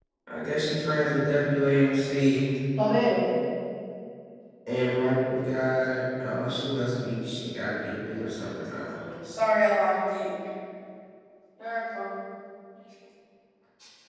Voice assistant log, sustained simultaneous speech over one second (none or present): none